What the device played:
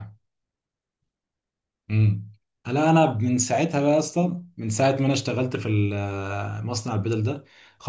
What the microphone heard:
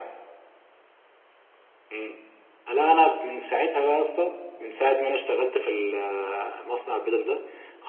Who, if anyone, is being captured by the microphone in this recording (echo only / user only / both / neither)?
echo only